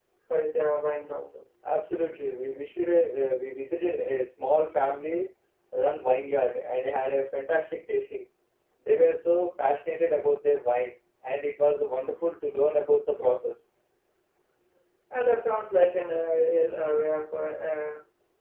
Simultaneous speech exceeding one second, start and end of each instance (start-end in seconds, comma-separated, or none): none